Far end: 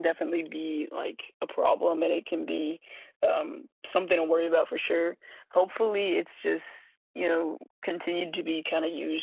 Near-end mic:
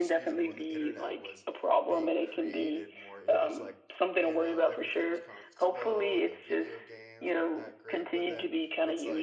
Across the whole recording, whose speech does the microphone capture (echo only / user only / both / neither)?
both